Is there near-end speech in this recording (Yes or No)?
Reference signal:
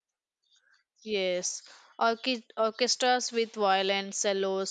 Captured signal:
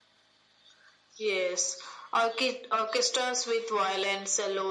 No